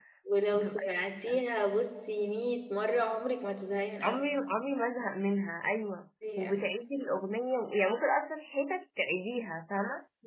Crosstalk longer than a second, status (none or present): none